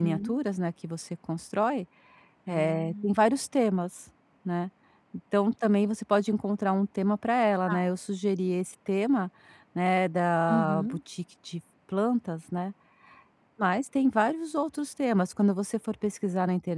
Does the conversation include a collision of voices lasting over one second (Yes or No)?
No